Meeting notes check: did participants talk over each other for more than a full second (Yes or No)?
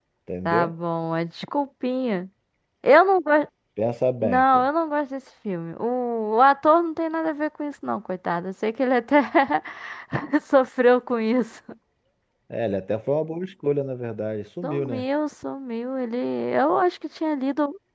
No